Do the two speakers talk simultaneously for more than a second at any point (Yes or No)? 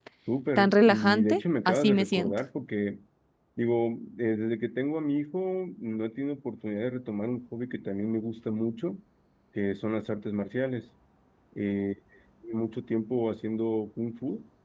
Yes